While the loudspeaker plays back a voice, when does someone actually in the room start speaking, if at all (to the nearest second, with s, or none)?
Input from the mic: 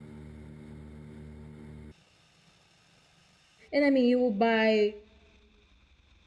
4 s